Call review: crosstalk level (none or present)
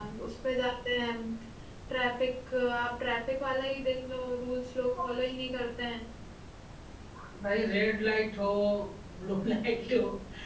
none